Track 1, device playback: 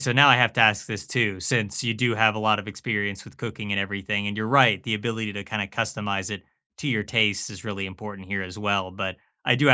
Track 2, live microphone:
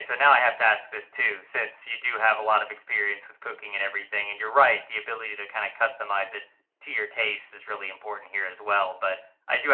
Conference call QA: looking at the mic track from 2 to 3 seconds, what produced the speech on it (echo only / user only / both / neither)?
echo only